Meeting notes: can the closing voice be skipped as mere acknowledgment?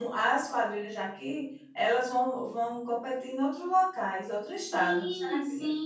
No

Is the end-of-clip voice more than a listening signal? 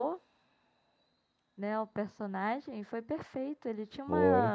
No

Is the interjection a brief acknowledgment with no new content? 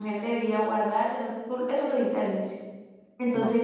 Yes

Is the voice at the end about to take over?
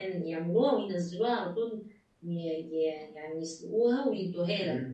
Yes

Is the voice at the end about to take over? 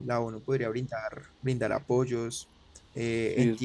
No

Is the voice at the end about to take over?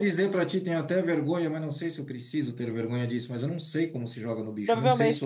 Yes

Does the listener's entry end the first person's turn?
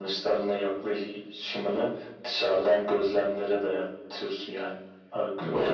Yes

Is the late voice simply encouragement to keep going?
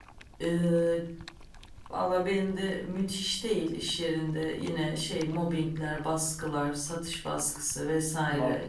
Yes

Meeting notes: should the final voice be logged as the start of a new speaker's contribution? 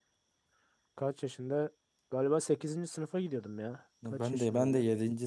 Yes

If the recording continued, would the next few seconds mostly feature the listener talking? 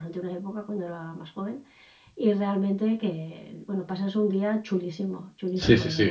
Yes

